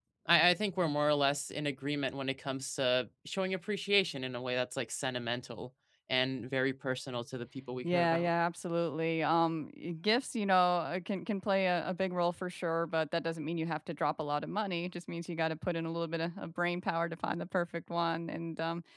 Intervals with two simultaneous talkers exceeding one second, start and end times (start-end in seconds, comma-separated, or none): none